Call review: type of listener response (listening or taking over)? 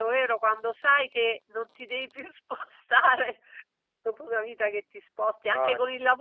listening